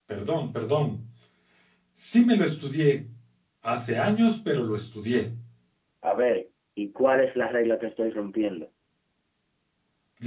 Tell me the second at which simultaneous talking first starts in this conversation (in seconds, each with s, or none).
none